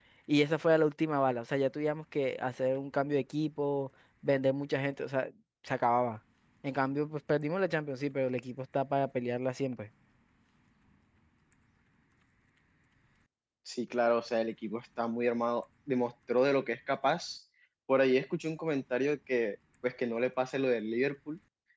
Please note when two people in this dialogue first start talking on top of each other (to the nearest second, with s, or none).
none